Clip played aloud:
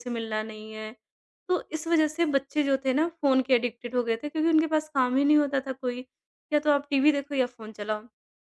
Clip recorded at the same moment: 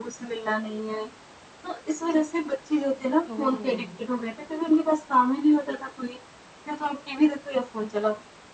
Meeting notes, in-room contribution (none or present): present